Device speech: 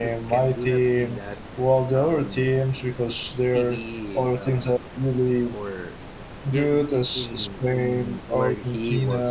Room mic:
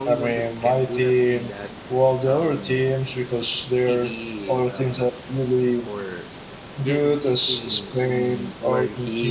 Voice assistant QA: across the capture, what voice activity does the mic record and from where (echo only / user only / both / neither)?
echo only